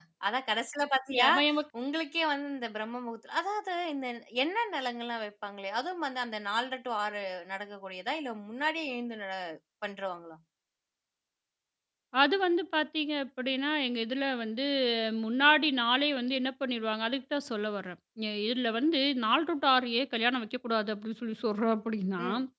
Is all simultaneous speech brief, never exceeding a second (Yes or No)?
Yes